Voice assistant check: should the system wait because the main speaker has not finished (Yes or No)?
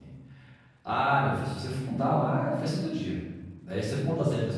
Yes